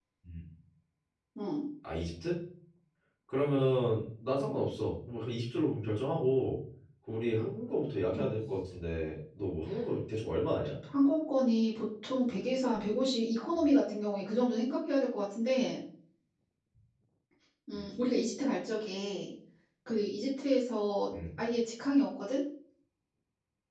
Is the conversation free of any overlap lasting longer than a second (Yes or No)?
Yes